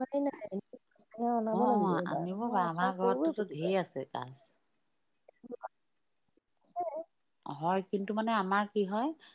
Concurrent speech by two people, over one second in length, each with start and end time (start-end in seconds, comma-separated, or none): 1.6-3.7